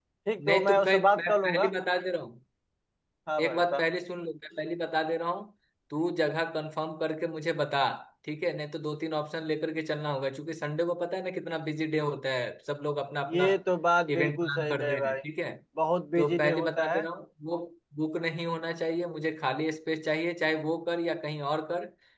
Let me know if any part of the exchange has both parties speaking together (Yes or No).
Yes